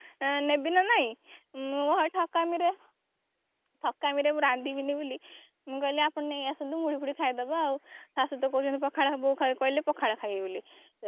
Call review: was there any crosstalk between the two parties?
No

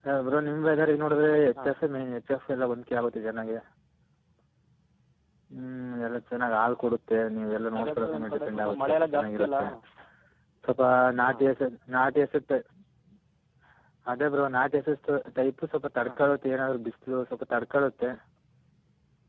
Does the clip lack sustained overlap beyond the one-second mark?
No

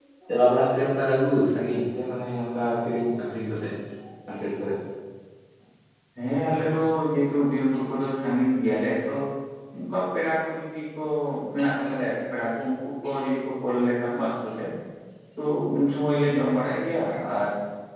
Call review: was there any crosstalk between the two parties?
No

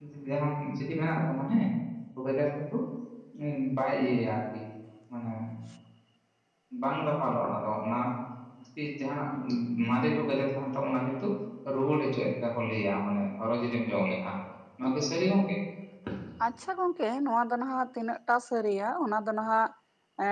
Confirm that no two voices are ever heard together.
Yes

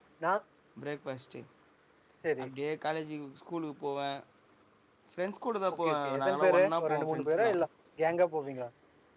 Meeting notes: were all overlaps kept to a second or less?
No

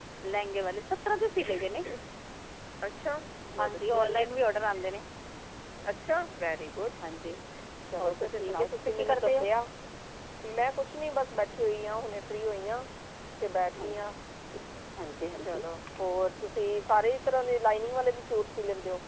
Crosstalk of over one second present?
Yes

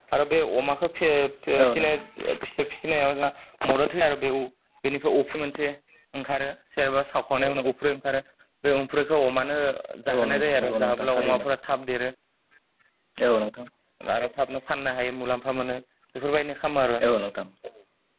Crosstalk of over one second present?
Yes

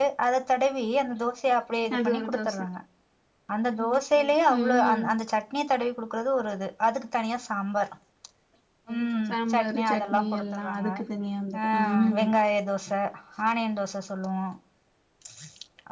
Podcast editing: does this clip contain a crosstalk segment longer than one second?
Yes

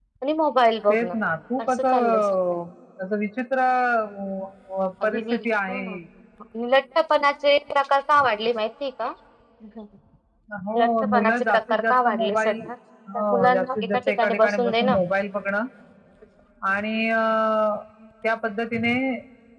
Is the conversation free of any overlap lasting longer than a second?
No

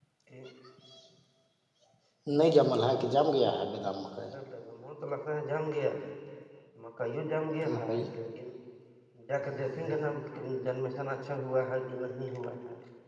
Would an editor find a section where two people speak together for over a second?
No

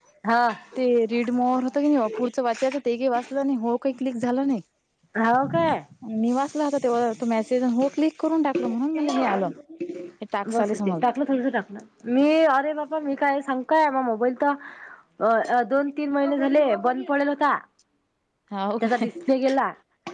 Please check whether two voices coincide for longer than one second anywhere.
No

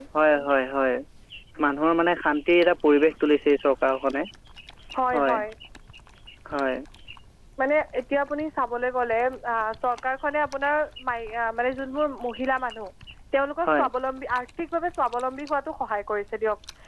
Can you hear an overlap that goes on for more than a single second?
No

